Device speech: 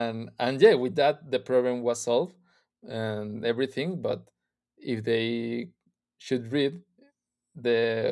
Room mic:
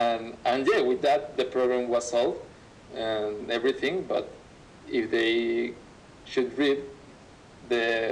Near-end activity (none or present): none